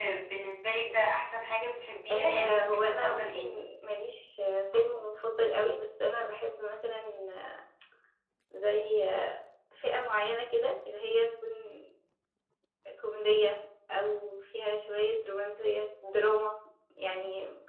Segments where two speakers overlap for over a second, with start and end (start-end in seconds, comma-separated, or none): 2.1-3.4